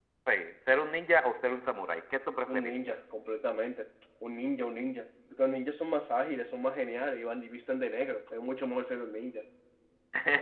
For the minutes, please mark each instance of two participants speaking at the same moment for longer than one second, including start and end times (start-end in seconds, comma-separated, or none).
none